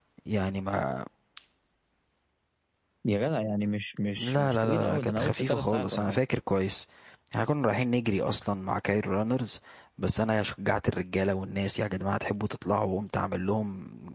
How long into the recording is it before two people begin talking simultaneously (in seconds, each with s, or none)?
4.2 s